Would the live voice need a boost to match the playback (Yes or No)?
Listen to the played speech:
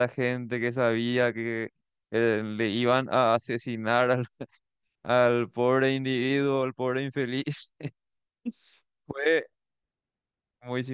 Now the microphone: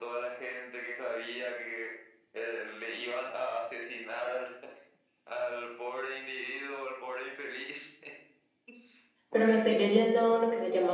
No